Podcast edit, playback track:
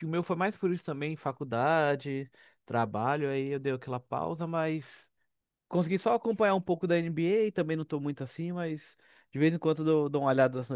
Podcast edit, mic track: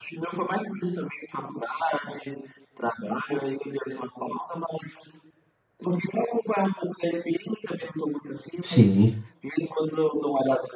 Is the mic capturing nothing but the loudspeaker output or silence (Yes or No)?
No